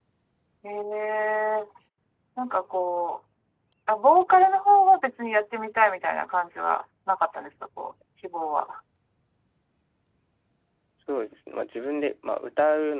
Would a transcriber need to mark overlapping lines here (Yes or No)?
No